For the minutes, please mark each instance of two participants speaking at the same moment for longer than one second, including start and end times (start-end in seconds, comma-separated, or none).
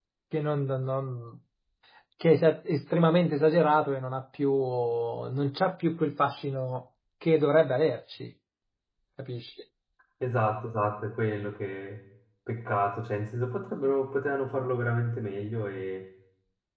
none